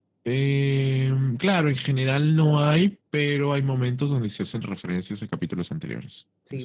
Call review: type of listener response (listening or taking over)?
taking over